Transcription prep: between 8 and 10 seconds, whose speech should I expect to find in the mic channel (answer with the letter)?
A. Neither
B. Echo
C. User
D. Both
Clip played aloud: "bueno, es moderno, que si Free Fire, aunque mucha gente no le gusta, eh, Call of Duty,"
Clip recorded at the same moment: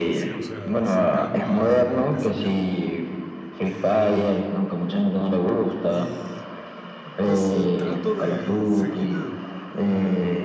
D